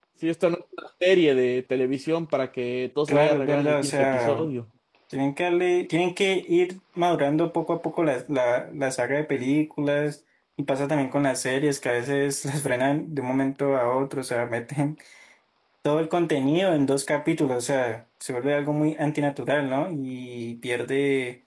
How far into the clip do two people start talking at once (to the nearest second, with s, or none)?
3 s